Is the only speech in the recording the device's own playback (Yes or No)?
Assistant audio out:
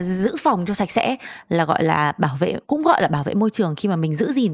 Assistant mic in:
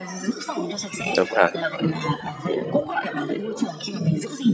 No